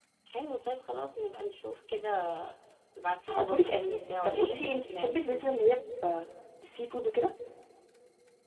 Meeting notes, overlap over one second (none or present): present